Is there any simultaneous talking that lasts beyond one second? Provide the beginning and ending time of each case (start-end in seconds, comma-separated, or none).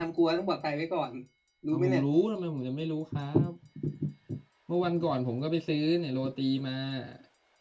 none